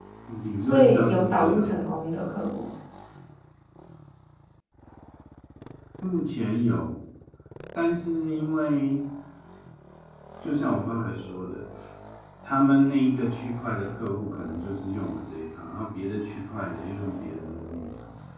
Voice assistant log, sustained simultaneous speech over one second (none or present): present